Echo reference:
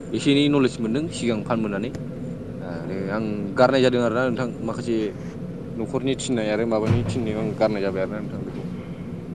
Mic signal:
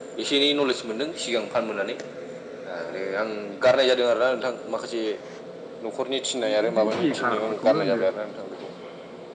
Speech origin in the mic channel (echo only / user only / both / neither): both